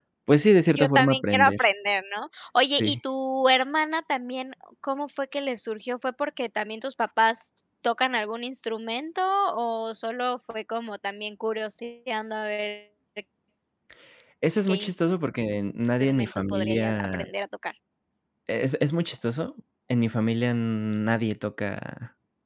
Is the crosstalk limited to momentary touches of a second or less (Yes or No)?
No